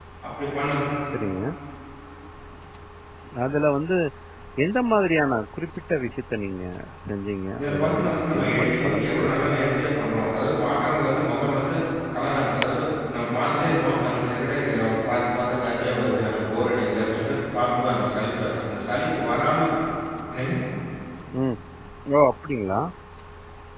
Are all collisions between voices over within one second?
No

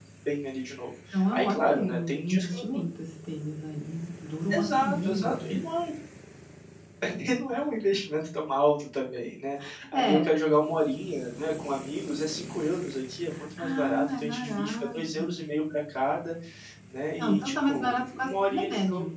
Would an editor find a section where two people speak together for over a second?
Yes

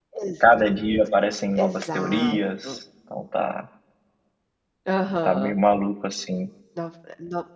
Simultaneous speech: Yes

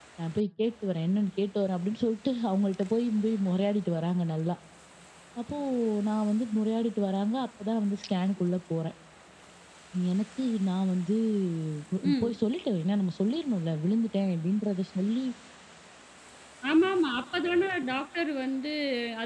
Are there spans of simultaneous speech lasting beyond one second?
No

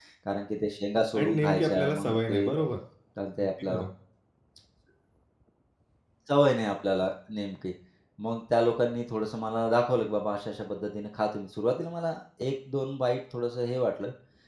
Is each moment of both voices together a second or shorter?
No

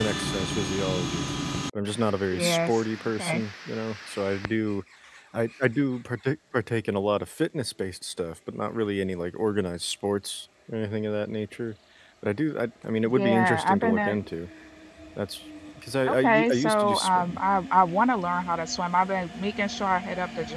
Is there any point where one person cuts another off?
Yes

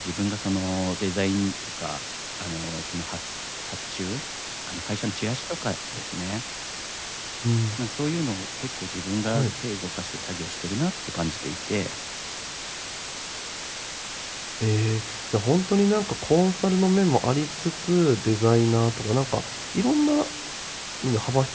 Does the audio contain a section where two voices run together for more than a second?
No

